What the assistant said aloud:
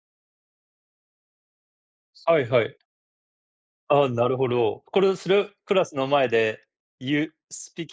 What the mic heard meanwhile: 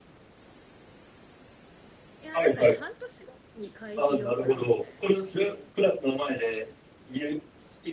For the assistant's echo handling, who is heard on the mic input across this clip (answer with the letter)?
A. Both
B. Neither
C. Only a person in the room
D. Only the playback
A